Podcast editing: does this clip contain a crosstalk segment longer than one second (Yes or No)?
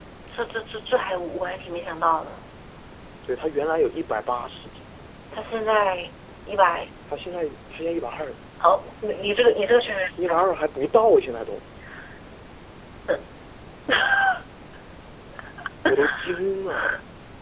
No